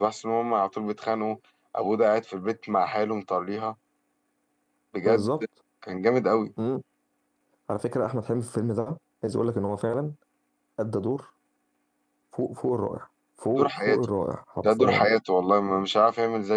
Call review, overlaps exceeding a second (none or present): none